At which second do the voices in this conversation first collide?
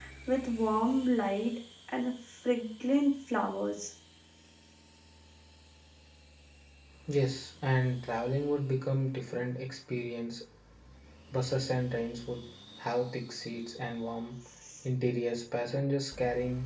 none

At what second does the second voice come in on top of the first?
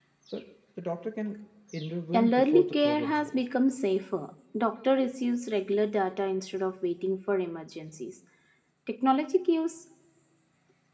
2.1 s

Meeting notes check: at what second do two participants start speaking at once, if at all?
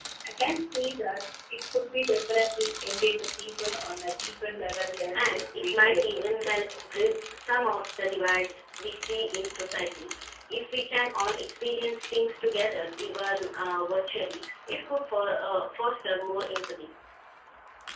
5.1 s

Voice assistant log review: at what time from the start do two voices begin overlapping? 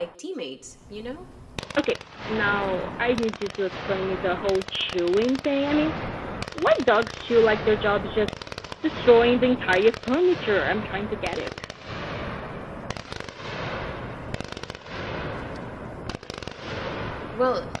none

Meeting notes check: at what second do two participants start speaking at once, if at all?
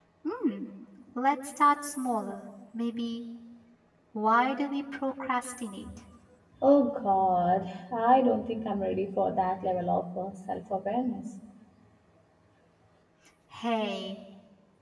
none

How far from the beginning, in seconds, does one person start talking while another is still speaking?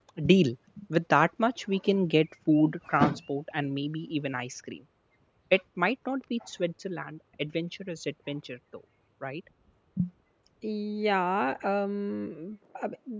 none

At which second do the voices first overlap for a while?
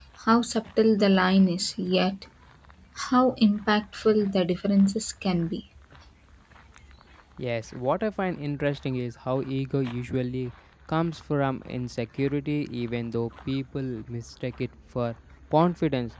none

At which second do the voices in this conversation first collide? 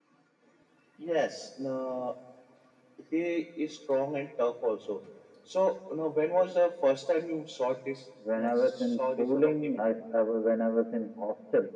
8.2 s

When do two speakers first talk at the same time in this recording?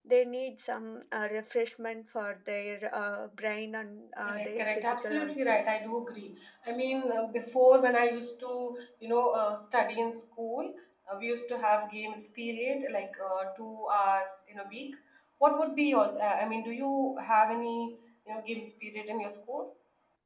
4.2 s

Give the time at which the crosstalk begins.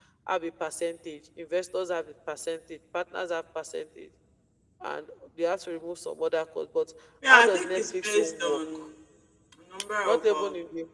7.3 s

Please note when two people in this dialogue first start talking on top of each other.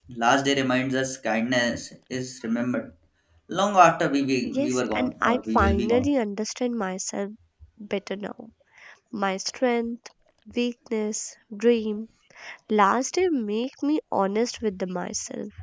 4.4 s

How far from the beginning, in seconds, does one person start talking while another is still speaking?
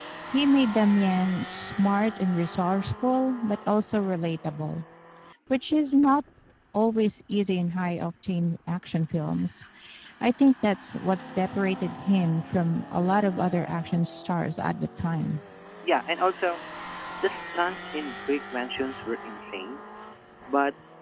none

